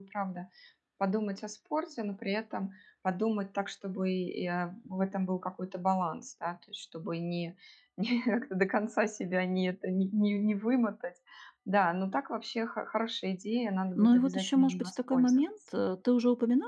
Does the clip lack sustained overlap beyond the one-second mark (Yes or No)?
No